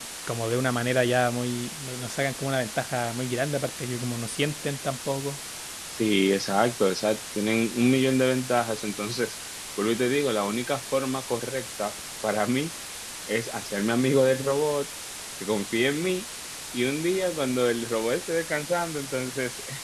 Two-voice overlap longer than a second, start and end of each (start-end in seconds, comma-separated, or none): none